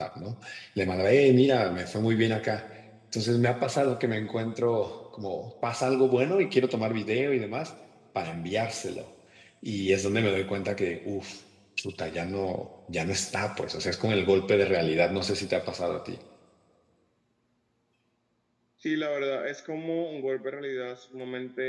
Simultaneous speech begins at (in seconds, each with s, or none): none